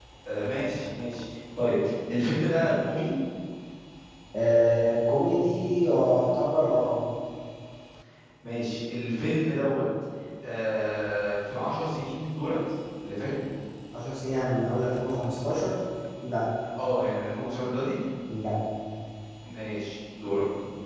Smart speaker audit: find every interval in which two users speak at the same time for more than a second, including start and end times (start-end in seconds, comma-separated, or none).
none